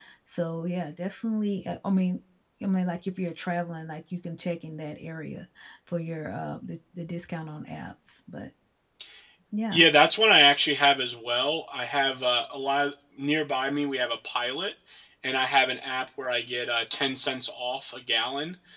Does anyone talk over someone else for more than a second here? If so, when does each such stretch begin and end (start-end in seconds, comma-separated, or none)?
none